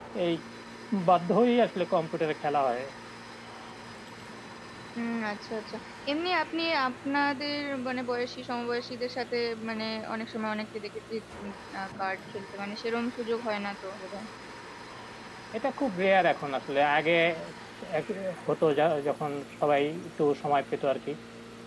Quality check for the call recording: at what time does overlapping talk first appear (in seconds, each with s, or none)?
none